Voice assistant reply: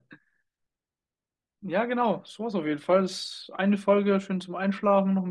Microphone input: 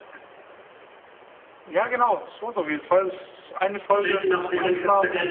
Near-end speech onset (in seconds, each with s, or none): 3.9 s